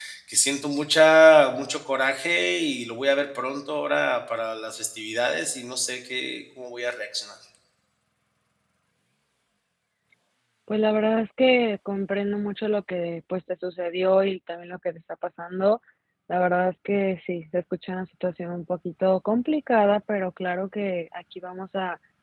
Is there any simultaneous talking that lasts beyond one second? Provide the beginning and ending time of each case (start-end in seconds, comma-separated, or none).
none